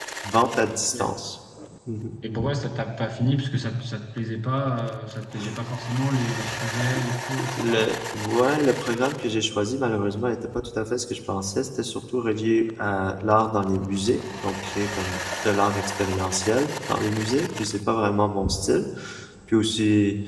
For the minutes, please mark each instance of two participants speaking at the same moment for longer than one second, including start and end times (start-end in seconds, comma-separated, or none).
none